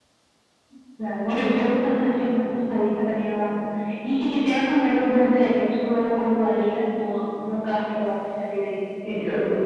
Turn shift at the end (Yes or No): Yes